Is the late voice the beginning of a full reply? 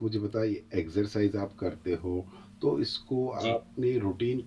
No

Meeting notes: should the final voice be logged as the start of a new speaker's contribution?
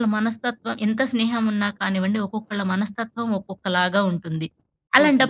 No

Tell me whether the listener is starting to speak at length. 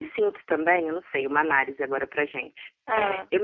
No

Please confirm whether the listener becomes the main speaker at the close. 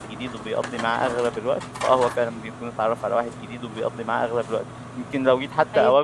No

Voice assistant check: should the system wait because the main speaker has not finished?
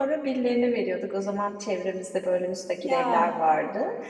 Yes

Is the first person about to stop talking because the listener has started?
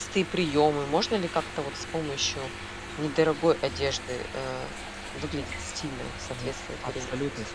Yes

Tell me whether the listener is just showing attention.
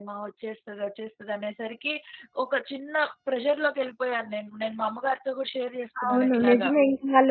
No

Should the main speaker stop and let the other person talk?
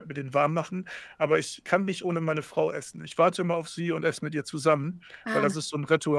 No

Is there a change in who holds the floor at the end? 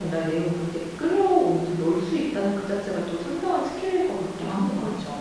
Yes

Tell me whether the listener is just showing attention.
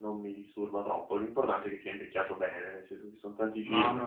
No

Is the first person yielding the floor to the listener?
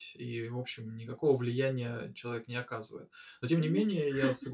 No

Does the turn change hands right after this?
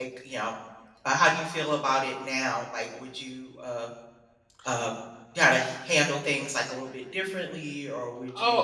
Yes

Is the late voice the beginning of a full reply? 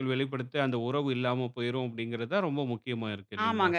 Yes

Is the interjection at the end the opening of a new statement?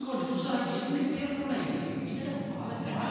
No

